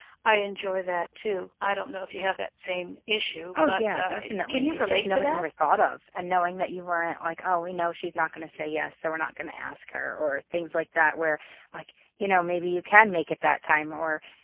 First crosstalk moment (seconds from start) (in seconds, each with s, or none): 3.6 s